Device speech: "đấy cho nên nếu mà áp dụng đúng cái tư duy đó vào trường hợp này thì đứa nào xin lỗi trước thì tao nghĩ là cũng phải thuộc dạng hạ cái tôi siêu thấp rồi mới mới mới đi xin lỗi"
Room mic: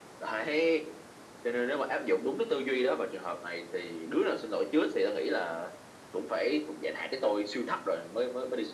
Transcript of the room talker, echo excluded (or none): none